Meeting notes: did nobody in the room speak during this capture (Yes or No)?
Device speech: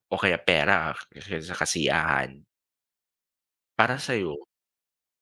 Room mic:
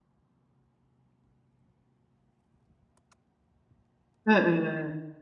No